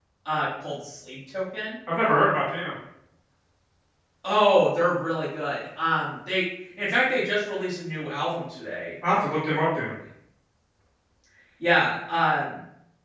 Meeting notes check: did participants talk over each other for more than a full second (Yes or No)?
No